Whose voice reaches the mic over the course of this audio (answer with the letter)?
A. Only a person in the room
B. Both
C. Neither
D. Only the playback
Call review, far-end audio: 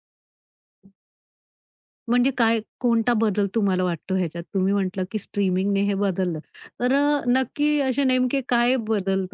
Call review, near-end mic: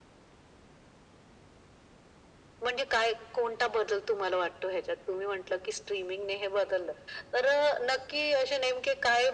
D